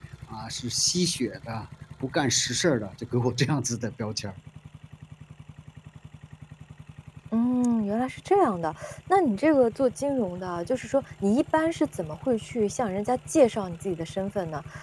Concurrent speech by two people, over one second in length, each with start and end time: none

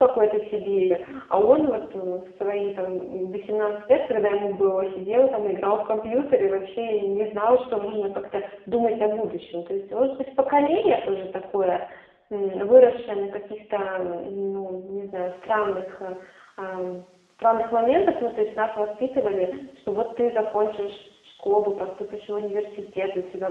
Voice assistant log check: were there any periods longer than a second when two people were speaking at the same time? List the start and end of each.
none

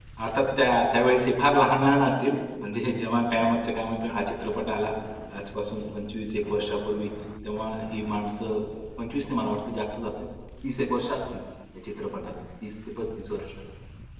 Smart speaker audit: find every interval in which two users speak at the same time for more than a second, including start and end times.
none

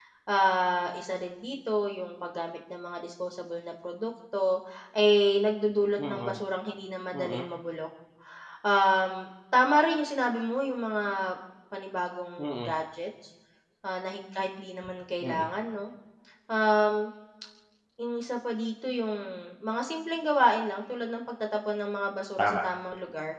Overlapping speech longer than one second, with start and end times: none

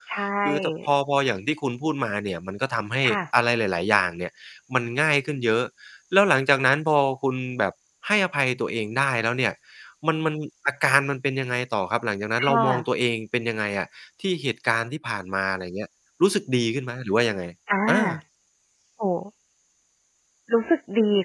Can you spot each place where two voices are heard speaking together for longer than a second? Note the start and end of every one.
none

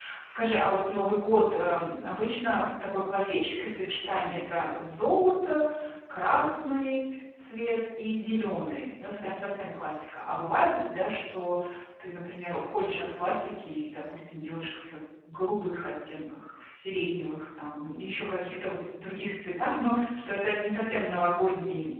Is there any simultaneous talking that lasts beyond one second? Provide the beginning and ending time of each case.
none

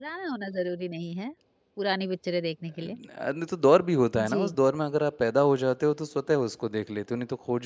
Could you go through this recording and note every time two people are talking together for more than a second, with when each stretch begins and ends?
none

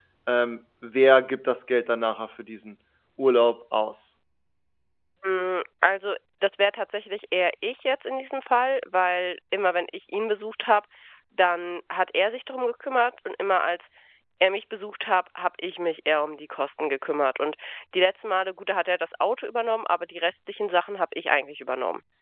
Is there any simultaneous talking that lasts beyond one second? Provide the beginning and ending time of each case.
none

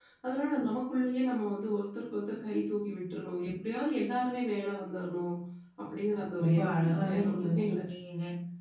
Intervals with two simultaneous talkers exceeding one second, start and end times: 6.4-7.8

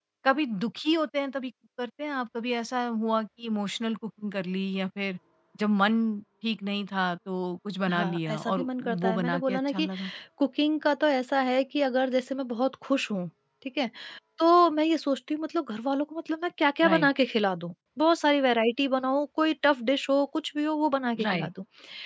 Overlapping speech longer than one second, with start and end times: 7.9-9.9

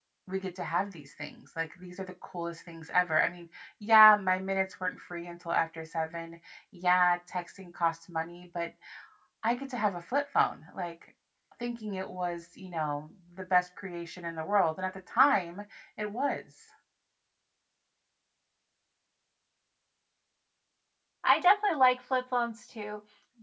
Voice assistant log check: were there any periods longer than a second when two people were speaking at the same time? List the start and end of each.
none

